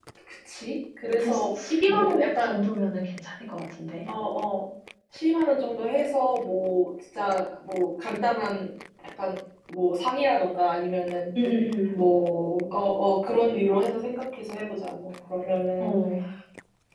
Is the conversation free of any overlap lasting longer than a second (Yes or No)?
No